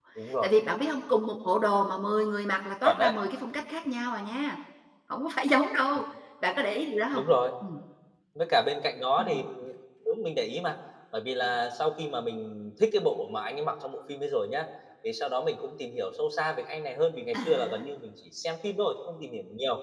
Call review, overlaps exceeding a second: none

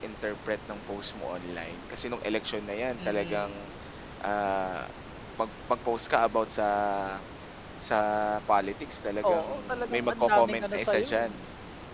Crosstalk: present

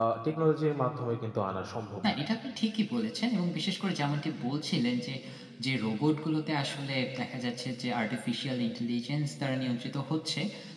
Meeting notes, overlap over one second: none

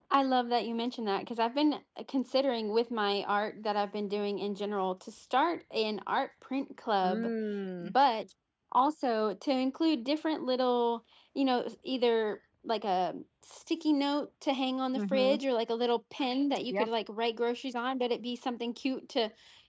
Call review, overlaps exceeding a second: none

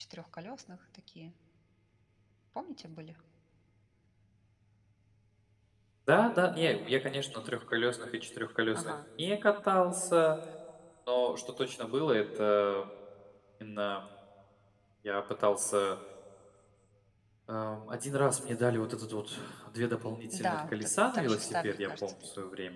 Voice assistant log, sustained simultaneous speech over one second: present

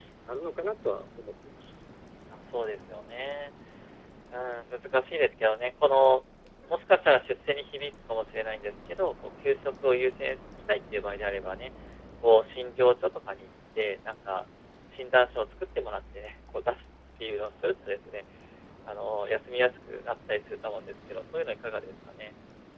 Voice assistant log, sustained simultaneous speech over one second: none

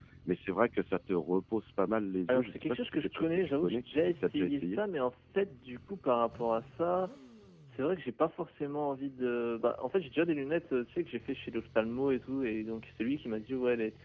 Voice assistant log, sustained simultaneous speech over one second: present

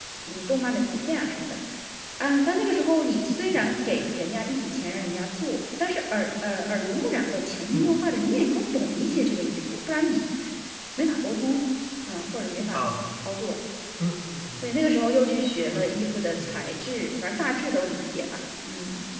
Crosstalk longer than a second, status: none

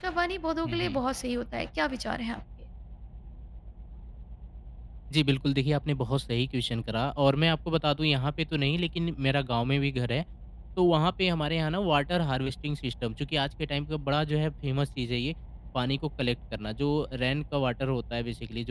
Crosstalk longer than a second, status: none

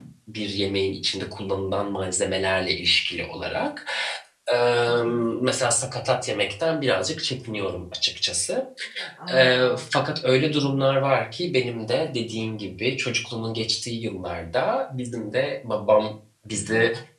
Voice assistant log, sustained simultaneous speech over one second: none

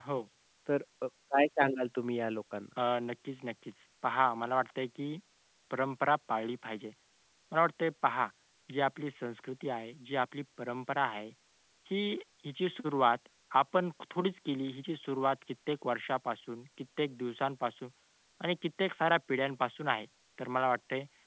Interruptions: none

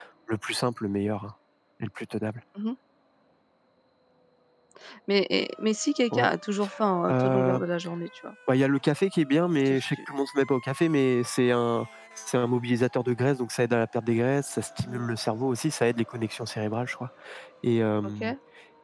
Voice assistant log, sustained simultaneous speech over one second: none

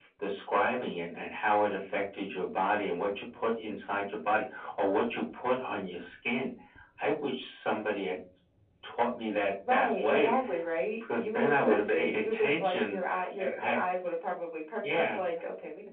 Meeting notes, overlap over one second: present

